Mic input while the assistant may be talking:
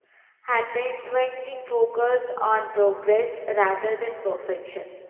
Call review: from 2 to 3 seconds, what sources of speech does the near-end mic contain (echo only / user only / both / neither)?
user only